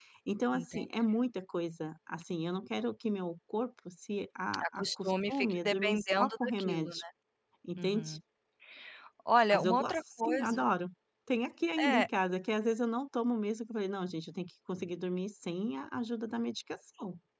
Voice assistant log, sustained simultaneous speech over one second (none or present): present